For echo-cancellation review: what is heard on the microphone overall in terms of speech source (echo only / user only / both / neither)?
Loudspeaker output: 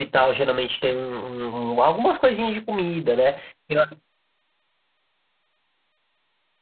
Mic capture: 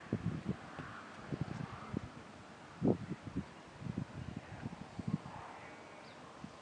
neither